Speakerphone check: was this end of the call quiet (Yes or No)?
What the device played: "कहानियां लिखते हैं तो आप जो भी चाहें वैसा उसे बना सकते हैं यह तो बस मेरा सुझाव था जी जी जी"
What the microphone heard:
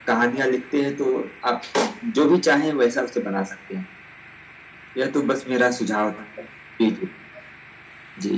Yes